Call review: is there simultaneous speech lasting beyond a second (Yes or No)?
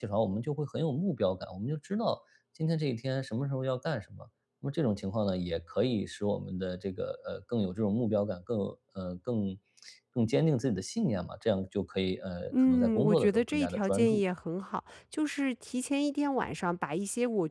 Yes